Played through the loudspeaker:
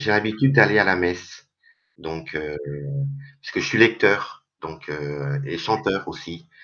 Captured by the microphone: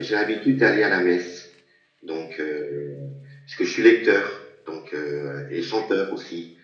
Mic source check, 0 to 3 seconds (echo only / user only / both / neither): echo only